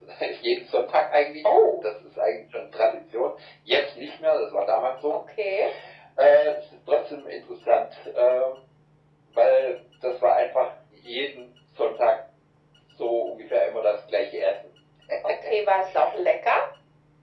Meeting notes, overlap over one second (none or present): none